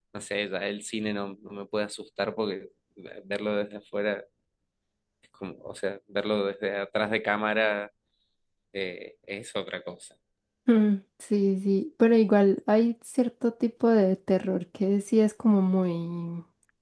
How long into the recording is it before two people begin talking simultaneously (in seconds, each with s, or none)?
none